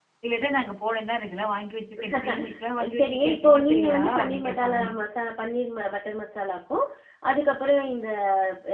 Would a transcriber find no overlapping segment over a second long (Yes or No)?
No